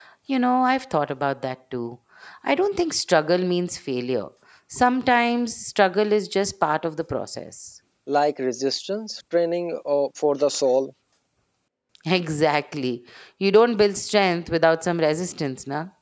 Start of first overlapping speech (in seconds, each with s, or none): none